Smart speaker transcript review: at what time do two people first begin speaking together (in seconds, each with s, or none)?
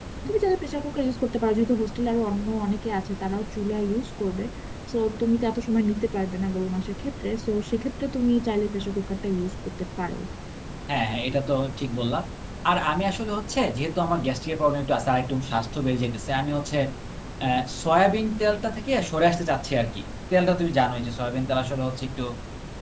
none